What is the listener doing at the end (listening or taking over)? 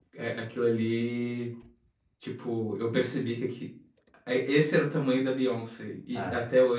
listening